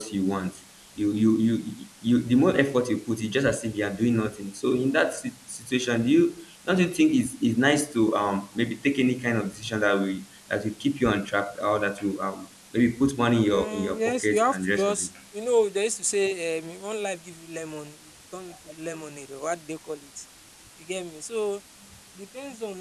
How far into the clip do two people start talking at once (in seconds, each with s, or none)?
13.5 s